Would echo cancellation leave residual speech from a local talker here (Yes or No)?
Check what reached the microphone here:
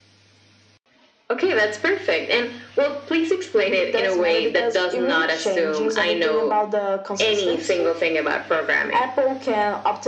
No